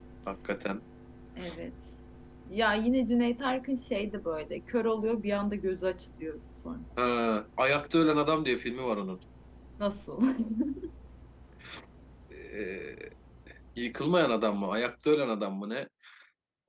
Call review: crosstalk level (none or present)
none